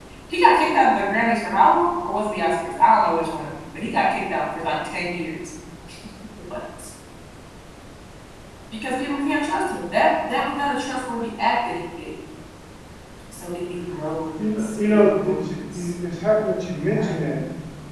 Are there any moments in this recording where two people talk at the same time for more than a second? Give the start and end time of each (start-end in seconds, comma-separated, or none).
14.6-15.9